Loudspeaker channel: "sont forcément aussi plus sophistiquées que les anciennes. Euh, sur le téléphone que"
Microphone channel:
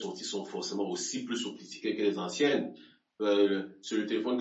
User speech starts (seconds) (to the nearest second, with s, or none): none